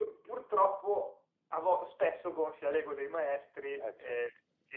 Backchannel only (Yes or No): Yes